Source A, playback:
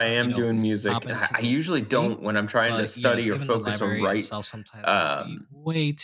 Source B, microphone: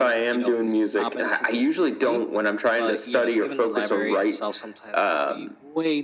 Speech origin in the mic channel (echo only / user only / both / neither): echo only